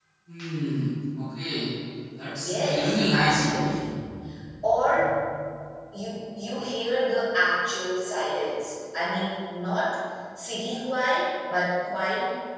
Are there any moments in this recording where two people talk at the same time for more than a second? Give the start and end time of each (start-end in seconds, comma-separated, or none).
2.4-3.6